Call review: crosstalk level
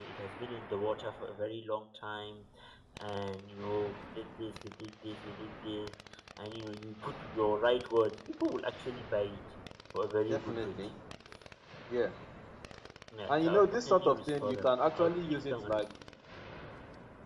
present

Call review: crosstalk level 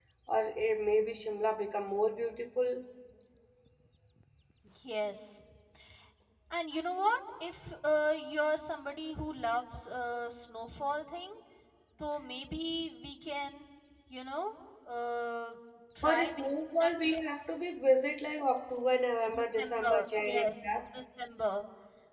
present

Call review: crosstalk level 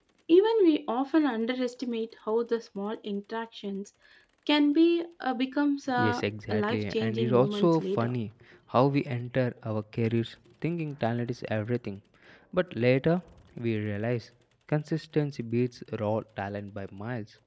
present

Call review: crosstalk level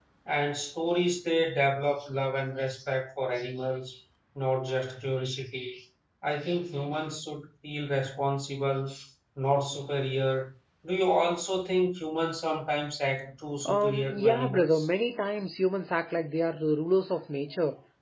present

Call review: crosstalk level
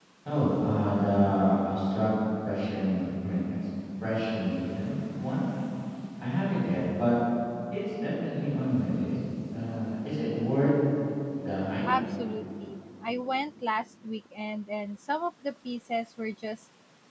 none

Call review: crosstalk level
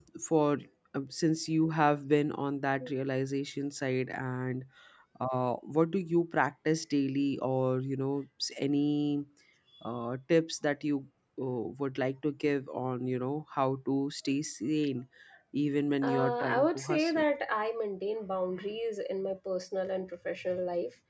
present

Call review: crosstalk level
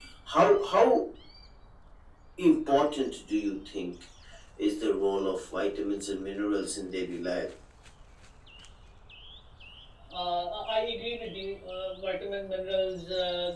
none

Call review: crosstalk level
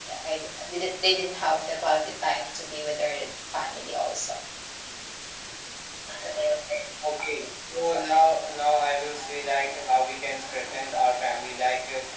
none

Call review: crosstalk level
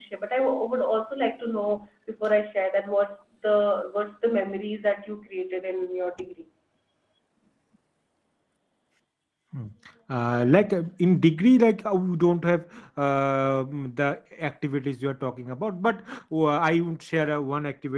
none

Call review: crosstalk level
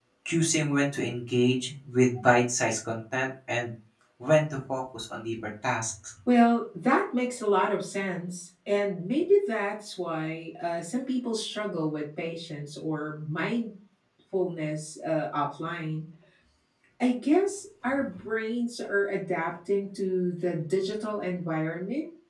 none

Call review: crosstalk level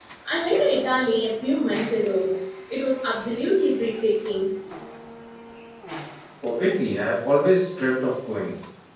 none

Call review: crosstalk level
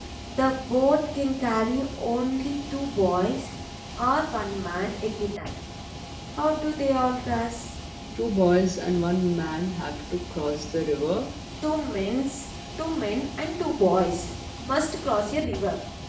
none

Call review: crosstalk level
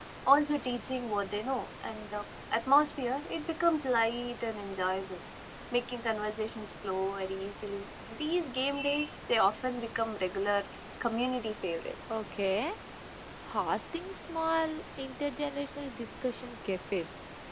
none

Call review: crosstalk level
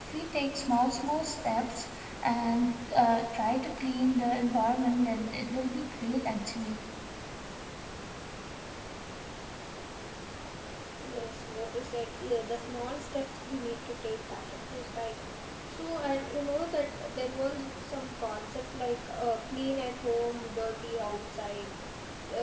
none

